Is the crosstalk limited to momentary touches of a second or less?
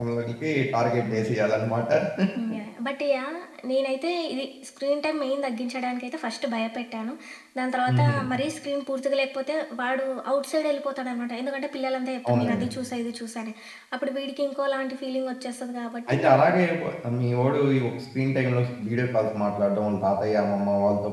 Yes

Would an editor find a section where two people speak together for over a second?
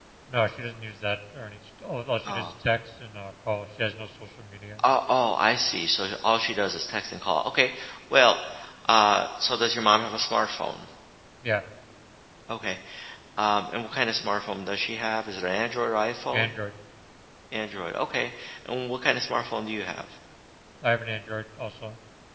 No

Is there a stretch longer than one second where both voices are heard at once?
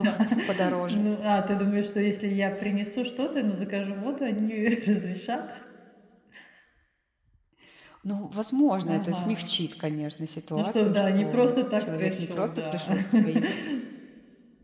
Yes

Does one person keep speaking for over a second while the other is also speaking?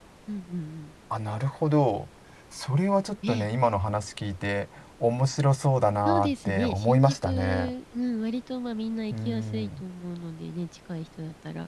Yes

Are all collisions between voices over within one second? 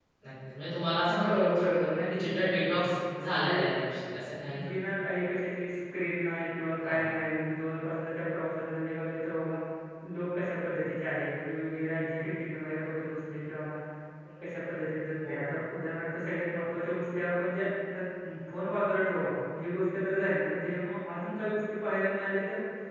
No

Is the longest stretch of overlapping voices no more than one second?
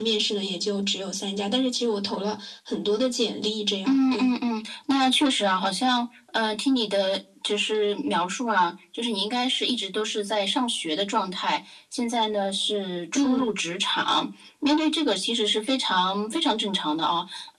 Yes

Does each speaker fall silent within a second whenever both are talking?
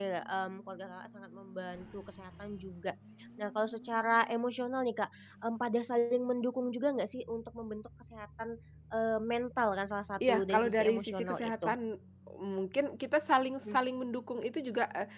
No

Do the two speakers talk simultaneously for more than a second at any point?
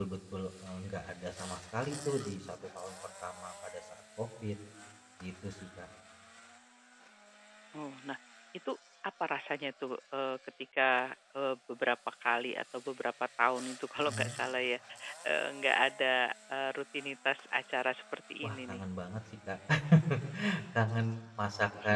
No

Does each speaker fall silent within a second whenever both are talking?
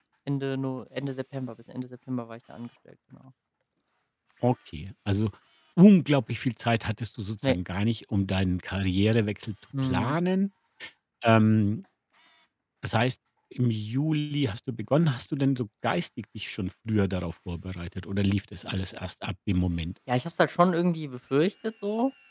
Yes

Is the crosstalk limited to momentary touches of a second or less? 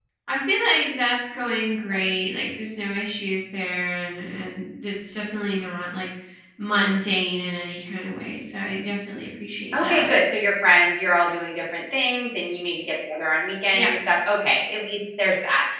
Yes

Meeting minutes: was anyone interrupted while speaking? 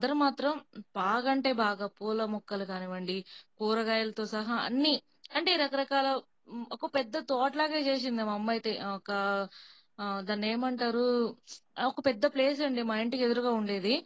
No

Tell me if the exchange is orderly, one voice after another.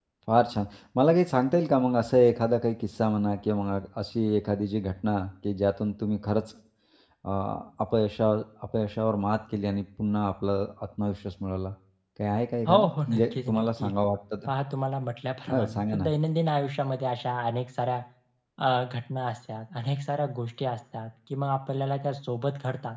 No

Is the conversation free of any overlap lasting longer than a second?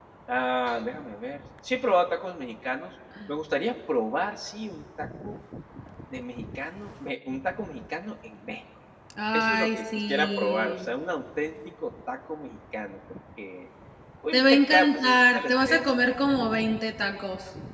No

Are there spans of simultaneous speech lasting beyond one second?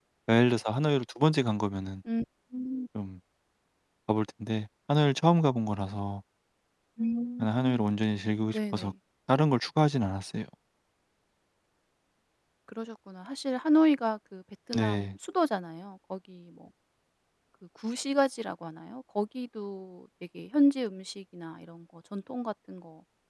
No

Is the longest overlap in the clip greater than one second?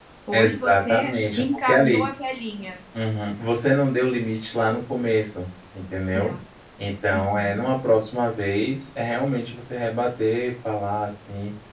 Yes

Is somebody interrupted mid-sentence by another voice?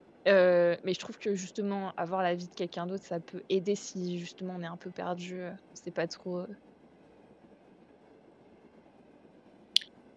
No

